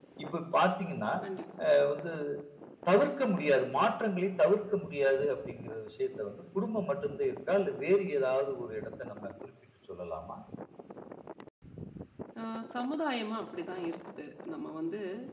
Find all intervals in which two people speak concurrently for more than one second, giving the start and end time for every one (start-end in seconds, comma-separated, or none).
none